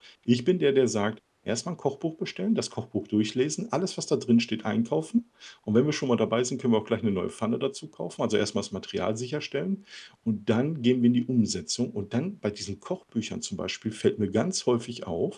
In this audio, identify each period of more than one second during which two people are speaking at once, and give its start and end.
none

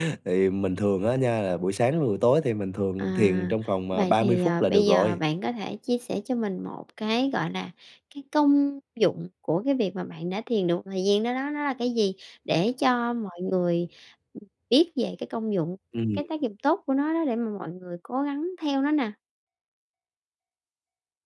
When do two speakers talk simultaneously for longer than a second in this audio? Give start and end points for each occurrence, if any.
3.9-5.2

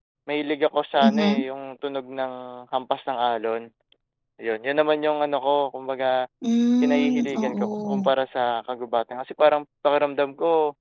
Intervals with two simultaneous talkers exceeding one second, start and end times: 6.8-8.1

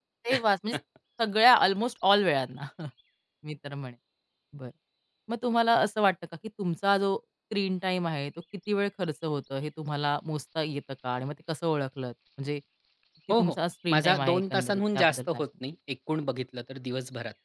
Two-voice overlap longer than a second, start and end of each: 13.9-15.4

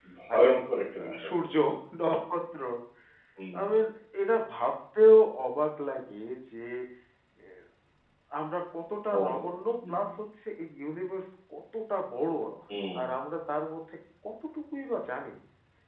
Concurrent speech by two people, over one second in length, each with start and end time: none

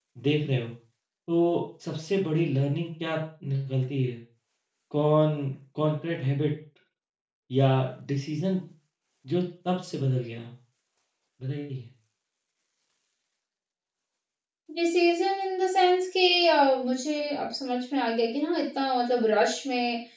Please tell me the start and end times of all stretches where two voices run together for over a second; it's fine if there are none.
none

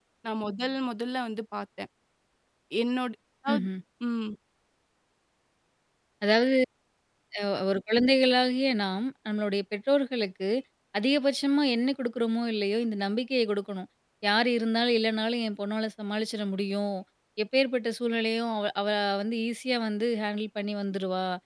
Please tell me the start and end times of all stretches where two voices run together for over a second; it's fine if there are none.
none

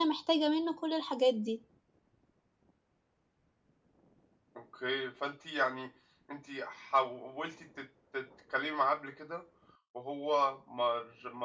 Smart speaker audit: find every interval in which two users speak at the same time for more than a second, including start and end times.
none

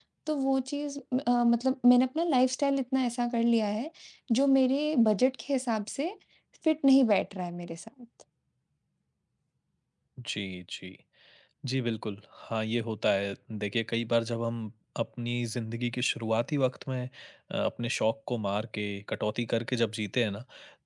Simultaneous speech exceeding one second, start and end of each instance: none

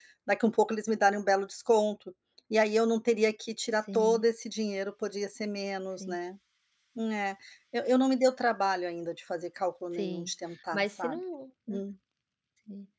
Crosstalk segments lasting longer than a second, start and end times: none

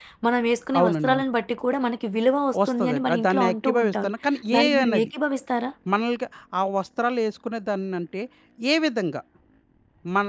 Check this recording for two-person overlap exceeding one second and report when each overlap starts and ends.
2.7-4.1

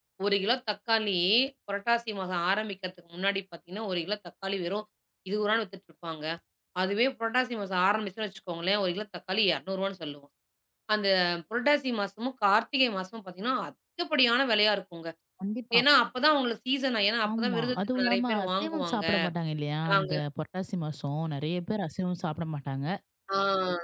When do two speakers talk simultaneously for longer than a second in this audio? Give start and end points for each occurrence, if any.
17.3-19.0

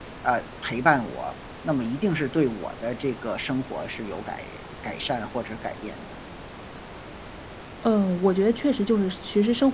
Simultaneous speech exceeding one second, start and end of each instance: none

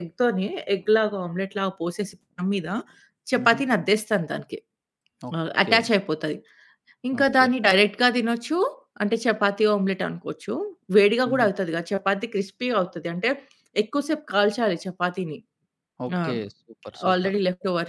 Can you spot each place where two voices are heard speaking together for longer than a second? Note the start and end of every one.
none

